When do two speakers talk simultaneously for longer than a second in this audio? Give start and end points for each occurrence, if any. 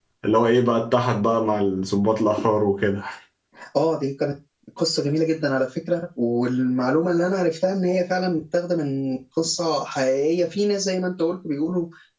none

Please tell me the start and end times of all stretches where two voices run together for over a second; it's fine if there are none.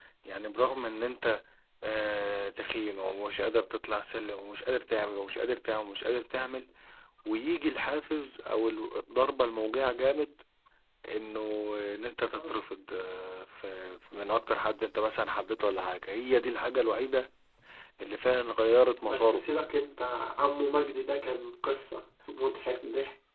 none

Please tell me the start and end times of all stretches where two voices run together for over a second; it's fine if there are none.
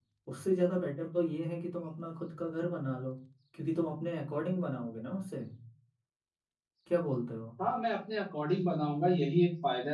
none

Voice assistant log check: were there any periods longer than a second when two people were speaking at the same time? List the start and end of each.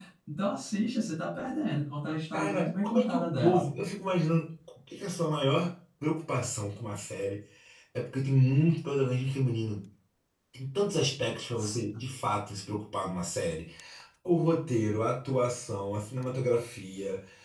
2.3-3.6

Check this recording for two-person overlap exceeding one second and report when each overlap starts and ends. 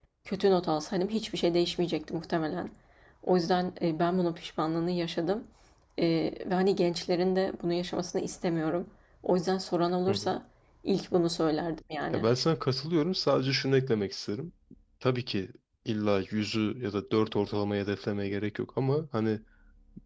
none

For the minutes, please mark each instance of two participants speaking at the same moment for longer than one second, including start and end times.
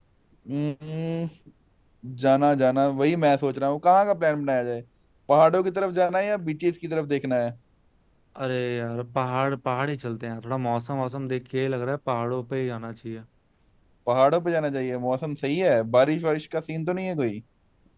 none

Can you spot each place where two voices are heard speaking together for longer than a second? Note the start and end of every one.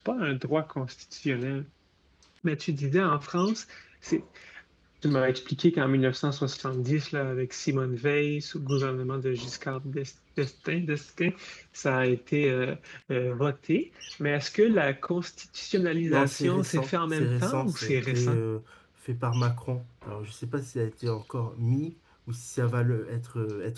16.1-18.4

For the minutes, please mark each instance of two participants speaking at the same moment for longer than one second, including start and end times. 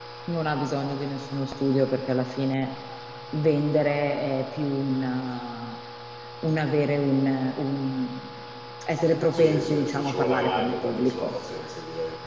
9.3-11.3

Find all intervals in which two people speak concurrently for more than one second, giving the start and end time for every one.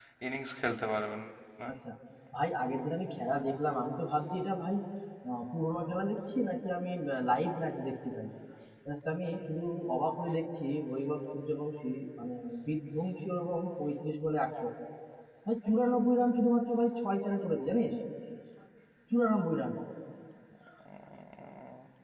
none

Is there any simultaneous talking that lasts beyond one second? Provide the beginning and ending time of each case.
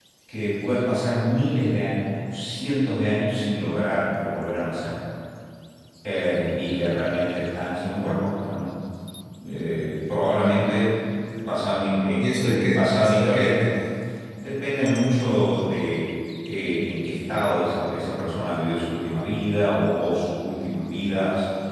12.2-13.6

